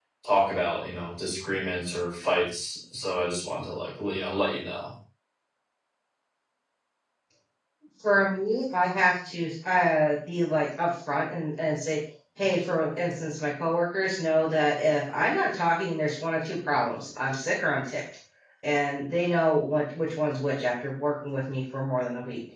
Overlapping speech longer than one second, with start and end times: none

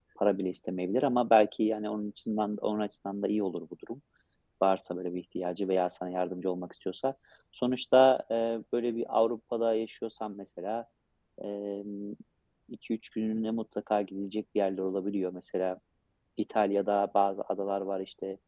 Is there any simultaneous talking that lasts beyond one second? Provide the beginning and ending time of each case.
none

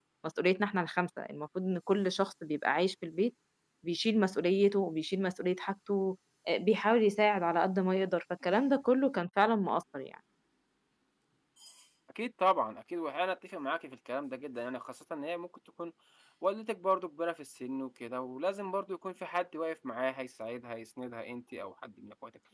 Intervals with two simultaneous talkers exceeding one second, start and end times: none

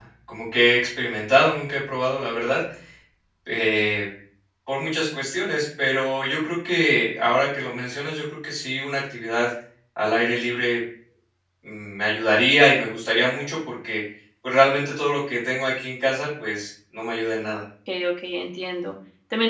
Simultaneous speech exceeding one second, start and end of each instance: none

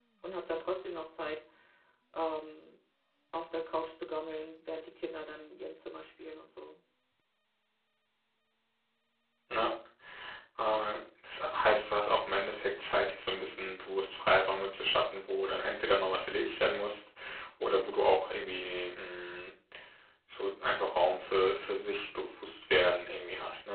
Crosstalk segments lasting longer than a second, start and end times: none

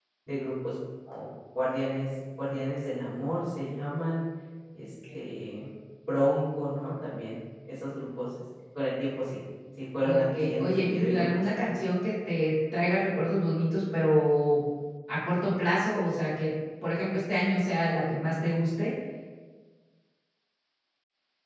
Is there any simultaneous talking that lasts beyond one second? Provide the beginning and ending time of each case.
10.0-11.6

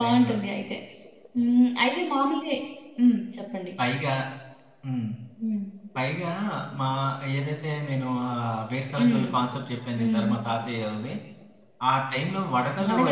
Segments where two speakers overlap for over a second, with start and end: none

